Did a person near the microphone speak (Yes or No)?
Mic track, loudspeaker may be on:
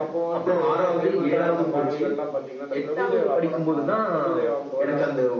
No